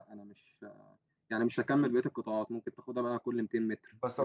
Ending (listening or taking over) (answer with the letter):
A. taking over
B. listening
A